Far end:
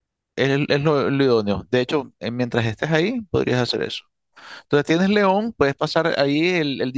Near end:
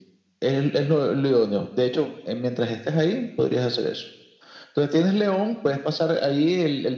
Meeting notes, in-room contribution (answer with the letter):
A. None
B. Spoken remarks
A